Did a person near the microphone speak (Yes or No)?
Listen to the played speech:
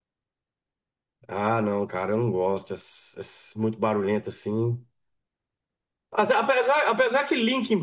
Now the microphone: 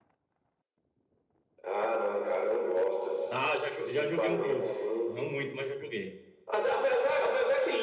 Yes